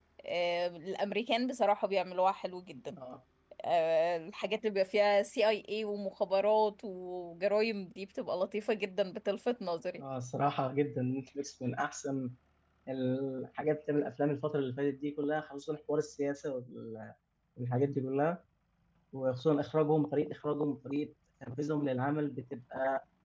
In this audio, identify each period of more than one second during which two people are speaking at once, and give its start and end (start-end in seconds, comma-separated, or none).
none